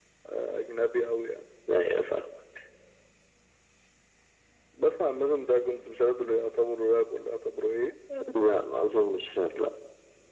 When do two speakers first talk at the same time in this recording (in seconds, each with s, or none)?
none